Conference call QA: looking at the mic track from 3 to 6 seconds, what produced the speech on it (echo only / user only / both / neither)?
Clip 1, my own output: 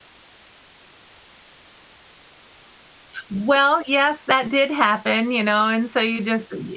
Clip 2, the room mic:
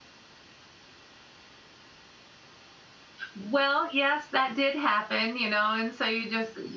echo only